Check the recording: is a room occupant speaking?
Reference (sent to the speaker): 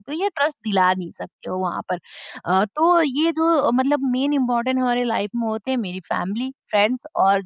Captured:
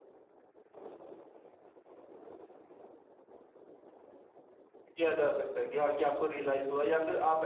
Yes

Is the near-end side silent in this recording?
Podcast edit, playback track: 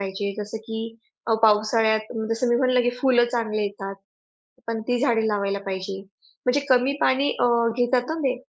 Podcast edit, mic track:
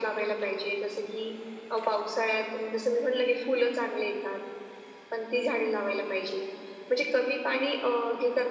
Yes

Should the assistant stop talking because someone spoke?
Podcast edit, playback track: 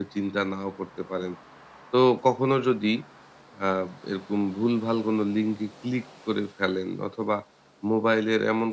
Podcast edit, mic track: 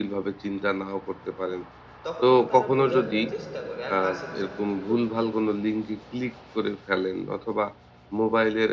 Yes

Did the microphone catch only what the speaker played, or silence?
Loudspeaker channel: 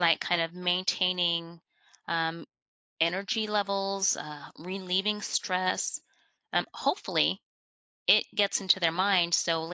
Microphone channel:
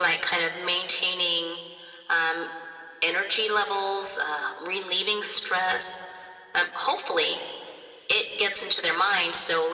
Yes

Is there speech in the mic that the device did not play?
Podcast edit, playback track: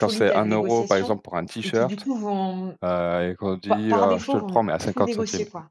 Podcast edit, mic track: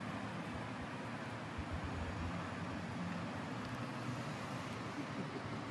No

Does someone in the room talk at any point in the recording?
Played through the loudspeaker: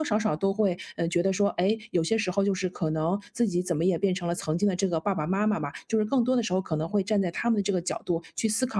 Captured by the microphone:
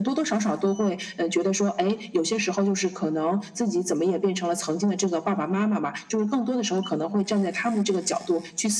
No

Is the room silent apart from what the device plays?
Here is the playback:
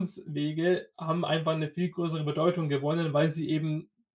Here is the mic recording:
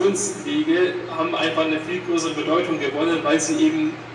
Yes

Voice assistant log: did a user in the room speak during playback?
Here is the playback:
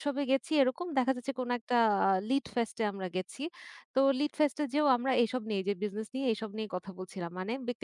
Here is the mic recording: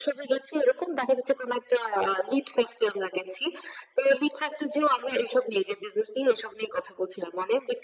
No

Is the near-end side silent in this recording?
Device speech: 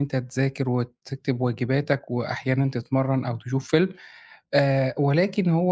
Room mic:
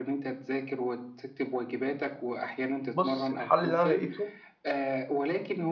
No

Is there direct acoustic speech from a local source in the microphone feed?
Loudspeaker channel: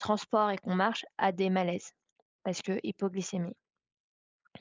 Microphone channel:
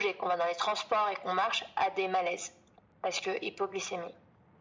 No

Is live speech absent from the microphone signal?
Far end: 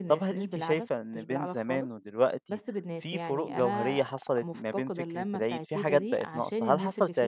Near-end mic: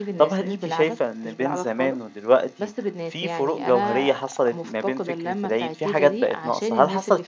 Yes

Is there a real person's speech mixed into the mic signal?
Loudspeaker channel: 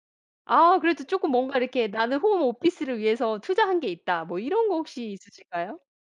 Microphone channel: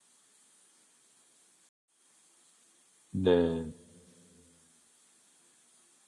Yes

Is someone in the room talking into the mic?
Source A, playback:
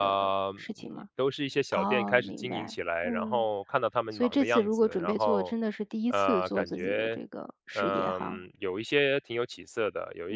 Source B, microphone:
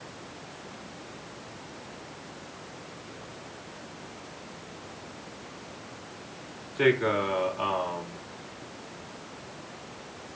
Yes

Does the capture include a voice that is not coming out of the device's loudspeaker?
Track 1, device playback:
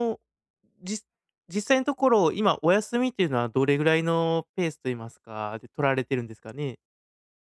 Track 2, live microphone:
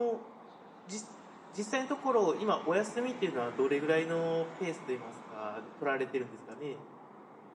No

